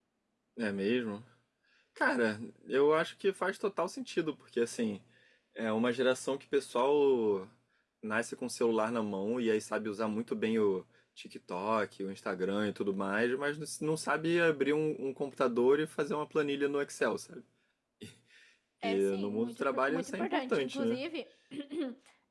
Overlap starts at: 18.8 s

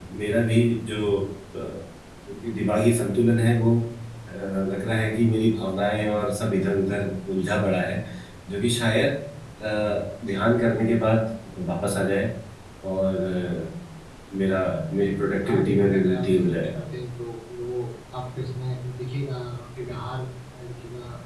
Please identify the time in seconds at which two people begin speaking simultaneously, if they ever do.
15.4 s

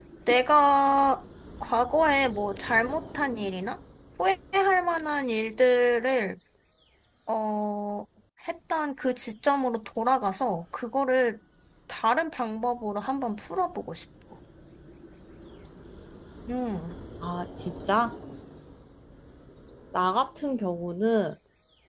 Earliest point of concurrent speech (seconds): none

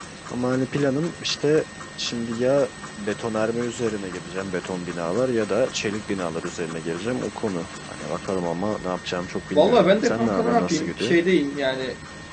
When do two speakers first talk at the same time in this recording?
9.5 s

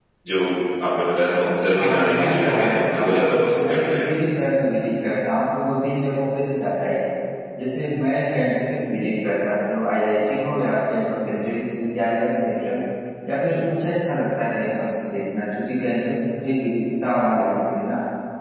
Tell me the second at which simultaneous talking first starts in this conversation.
1.7 s

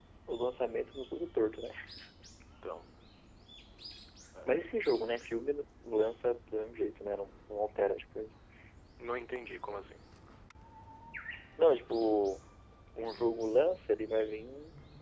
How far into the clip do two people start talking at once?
none

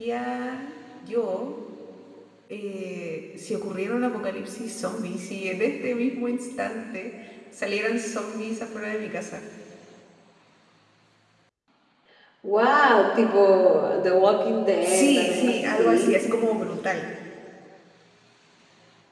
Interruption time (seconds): 14.8 s

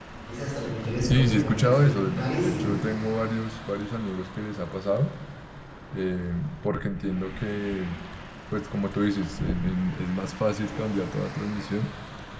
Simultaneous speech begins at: 1.0 s

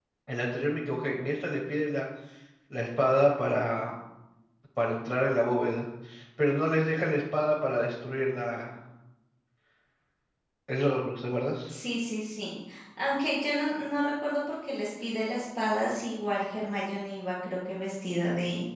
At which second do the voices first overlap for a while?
none

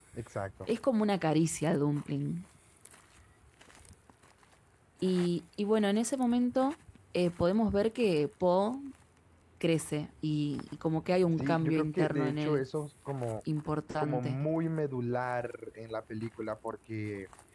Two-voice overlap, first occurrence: 11.4 s

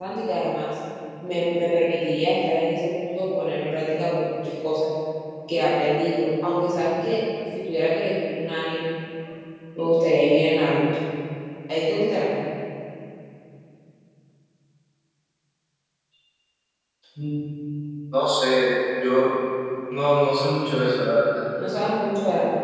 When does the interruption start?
none

